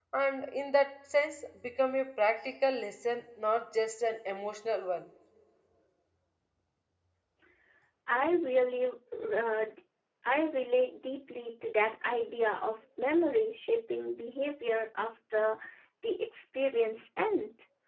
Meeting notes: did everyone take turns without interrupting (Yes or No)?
Yes